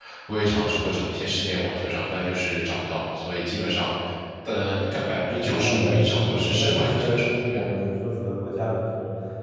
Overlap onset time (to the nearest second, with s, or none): 5 s